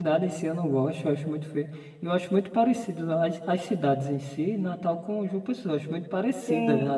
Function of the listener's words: taking over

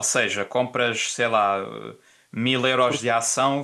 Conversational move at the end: listening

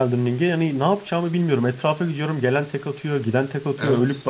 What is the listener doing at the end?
listening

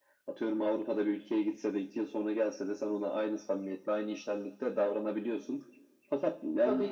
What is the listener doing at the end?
listening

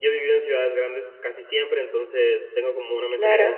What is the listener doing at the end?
listening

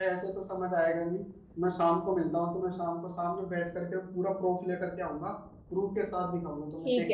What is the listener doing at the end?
taking over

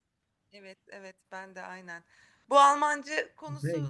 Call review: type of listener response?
listening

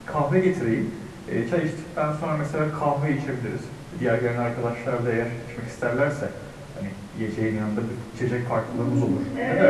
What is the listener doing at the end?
taking over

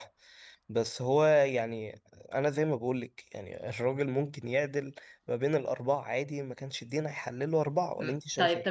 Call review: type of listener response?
taking over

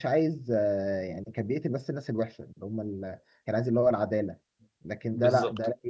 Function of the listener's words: listening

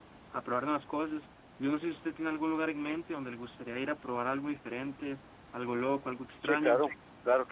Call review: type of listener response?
taking over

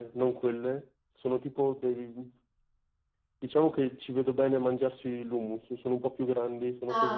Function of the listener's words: taking over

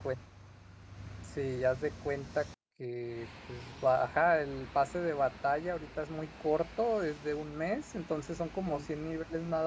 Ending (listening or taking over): listening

